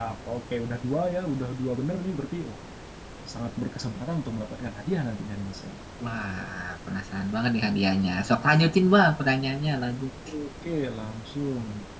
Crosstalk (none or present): none